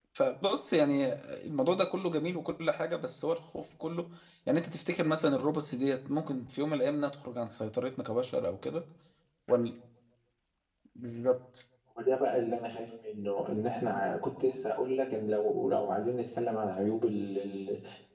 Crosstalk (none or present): none